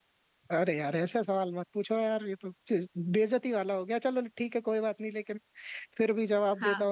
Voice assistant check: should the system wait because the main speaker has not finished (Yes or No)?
No